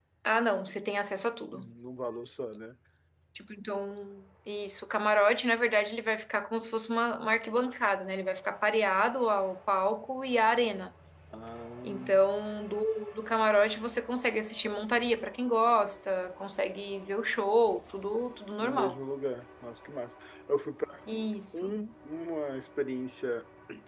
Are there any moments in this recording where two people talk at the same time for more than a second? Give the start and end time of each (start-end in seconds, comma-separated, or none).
none